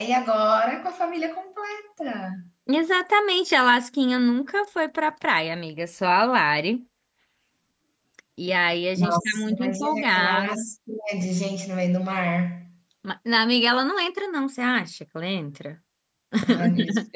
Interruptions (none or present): present